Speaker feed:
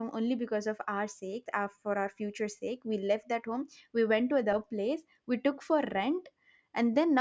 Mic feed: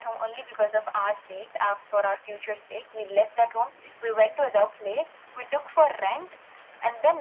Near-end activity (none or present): none